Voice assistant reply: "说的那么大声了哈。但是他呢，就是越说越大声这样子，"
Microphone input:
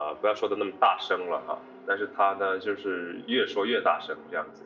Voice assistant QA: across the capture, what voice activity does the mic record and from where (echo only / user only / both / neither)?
echo only